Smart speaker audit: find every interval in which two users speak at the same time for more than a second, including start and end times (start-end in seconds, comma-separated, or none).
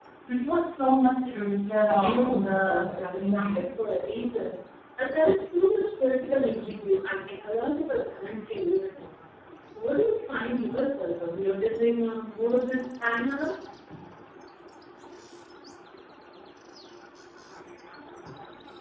2.0-3.6